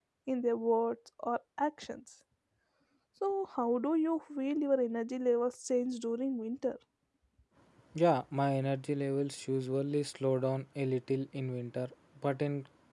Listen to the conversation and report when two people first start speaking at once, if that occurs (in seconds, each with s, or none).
none